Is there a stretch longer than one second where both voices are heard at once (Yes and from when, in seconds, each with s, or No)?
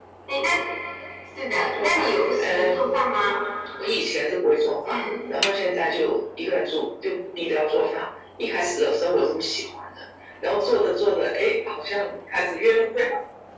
Yes, from 1.7 s